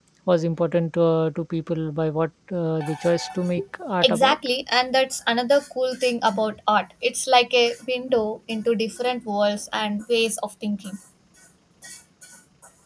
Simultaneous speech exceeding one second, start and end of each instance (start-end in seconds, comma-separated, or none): none